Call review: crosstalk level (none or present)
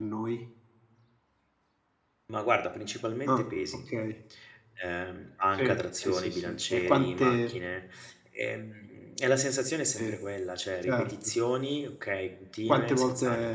present